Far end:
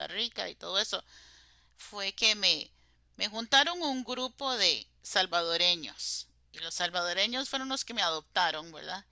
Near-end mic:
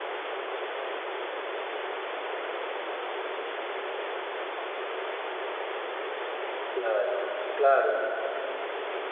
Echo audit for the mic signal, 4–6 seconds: neither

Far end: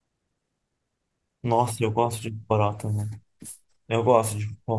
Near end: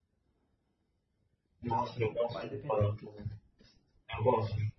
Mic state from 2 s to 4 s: both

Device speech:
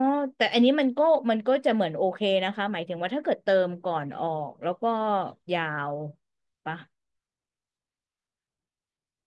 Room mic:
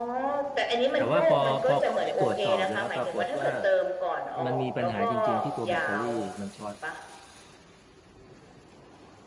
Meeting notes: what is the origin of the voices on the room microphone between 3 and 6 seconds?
both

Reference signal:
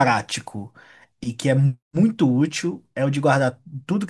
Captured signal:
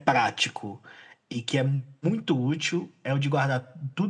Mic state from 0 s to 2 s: echo only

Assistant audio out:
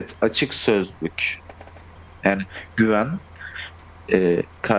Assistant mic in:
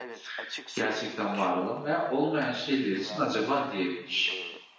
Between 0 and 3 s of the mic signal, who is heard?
both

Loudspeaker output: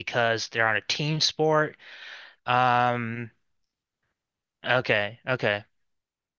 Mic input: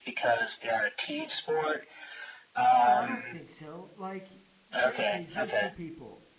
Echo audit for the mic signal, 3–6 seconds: both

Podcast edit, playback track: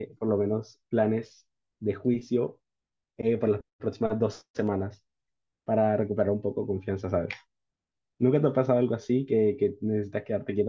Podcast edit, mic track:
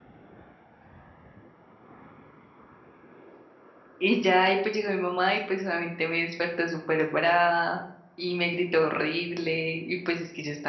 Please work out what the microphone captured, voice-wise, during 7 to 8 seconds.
user only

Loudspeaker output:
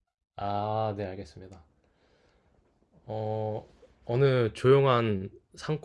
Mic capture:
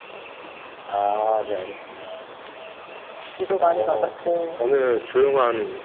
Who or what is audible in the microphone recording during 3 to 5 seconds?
both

